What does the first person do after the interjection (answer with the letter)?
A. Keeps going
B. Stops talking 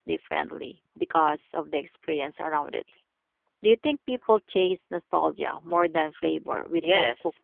B